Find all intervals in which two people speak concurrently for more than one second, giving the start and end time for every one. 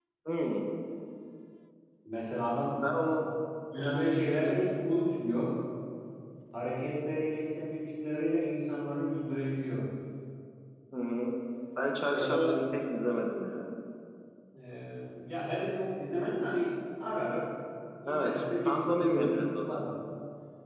18.1-19.8

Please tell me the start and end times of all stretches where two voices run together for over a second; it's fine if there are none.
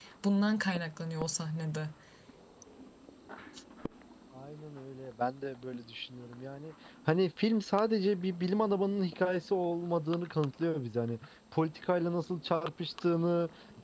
none

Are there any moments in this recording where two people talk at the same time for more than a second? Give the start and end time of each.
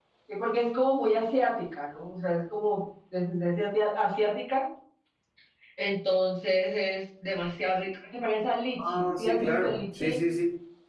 8.9-10.2

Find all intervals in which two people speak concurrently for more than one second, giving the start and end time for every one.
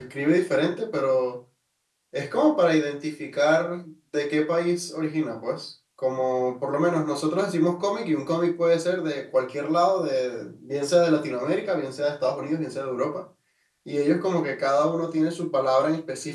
none

